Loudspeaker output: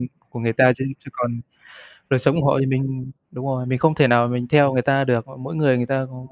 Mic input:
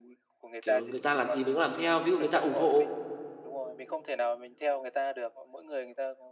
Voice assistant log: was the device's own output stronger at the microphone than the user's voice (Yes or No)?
No